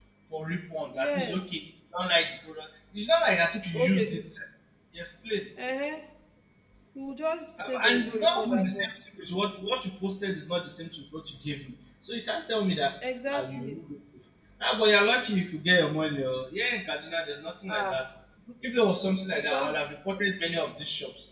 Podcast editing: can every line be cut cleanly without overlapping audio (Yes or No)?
No